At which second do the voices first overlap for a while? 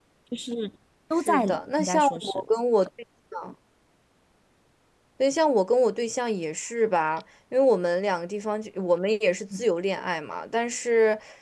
1.2 s

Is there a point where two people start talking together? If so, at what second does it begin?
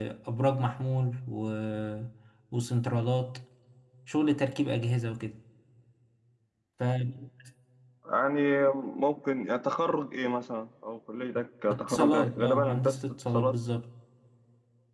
11.7 s

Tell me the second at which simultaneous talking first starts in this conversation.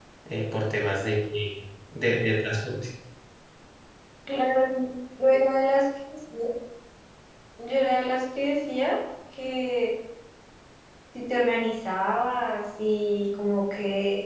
none

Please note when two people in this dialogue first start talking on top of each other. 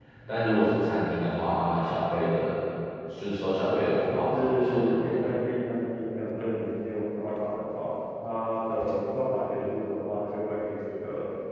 3.7 s

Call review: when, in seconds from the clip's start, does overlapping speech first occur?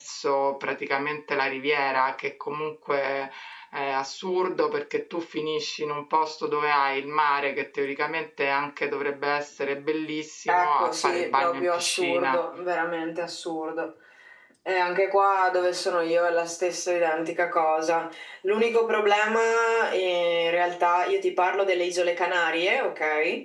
10.5 s

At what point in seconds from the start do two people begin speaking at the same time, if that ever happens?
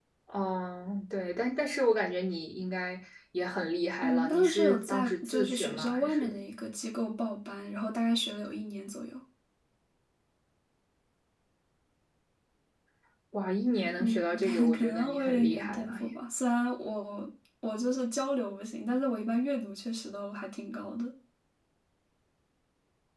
4.0 s

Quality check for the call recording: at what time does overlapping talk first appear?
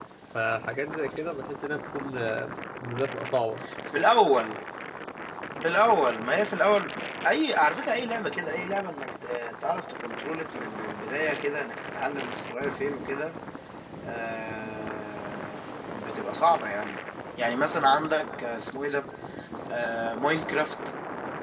none

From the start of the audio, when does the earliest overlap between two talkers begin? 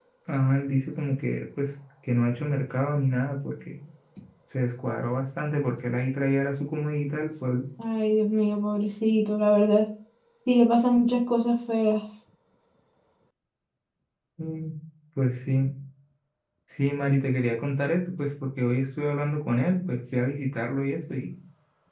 none

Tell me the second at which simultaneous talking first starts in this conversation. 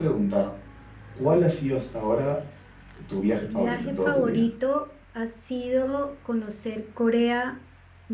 3.2 s

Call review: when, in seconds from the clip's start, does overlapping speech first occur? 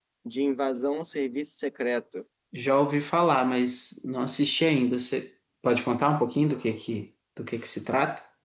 none

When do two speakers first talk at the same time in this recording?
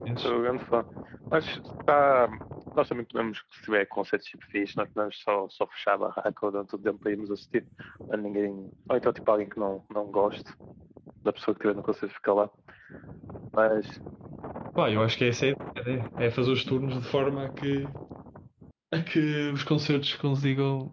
none

